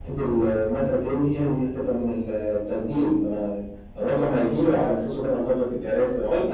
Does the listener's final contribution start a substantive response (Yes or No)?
Yes